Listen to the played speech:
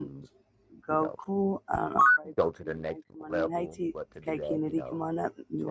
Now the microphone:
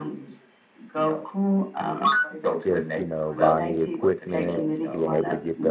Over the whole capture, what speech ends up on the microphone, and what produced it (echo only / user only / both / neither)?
both